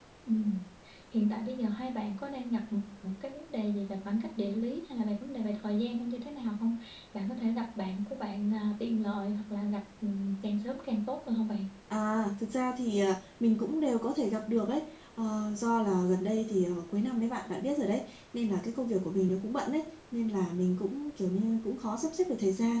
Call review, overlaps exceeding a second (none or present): none